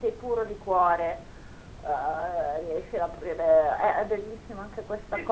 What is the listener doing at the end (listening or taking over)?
taking over